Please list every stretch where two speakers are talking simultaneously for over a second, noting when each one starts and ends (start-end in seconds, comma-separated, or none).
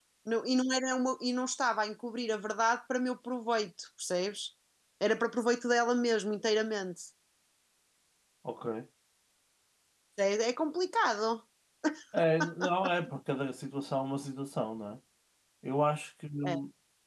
none